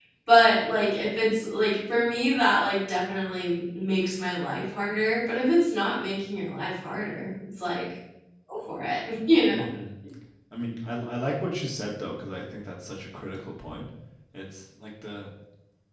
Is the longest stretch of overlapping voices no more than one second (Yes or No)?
Yes